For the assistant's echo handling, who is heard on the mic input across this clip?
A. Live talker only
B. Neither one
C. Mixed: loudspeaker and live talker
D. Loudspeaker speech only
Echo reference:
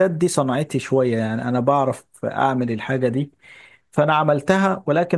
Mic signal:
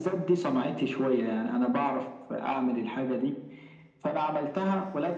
D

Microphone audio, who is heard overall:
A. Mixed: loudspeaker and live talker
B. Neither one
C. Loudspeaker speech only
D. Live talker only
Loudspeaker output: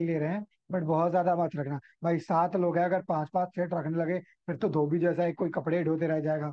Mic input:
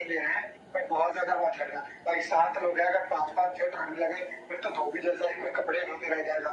C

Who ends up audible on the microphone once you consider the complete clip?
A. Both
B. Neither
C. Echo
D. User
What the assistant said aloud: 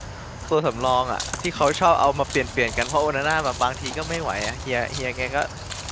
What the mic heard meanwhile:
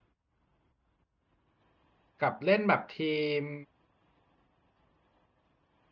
D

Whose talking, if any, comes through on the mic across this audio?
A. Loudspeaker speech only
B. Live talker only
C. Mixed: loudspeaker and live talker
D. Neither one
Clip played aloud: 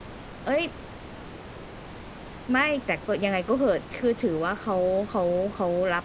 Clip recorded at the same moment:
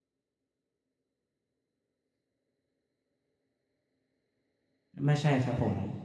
B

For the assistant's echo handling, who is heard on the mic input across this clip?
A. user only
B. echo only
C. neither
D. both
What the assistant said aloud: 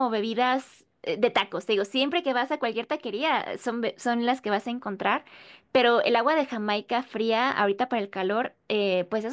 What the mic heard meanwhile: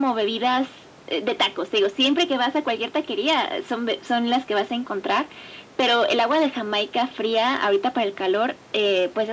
B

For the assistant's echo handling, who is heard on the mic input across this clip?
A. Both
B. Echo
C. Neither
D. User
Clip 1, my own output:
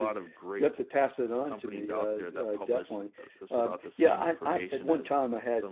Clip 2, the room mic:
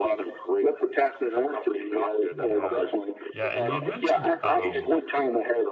A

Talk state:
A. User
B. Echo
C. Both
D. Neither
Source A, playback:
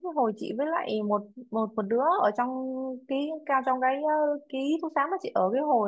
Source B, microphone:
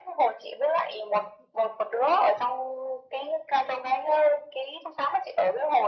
B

